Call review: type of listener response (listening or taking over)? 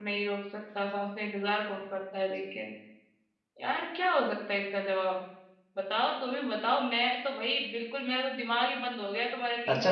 taking over